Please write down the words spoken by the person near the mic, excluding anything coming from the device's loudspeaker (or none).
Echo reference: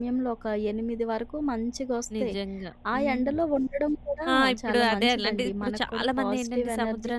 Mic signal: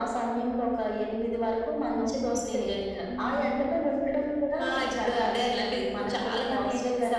ఓకే. హ్మ్.